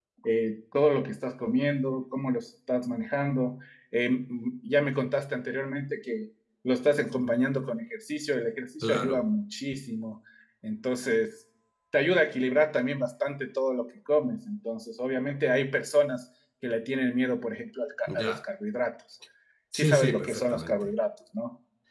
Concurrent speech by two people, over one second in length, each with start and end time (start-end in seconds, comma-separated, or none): 19.7-20.9